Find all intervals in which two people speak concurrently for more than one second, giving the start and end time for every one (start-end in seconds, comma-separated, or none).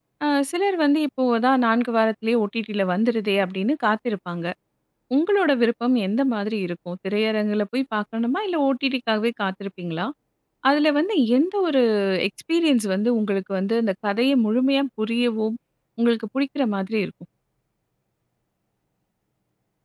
none